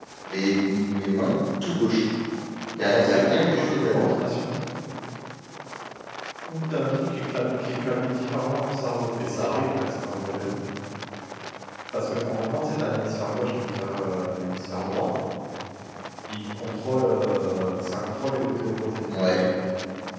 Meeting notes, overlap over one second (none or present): present